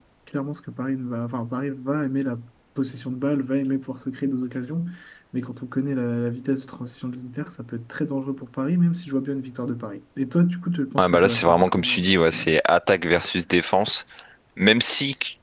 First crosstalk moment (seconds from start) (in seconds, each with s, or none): 11.0 s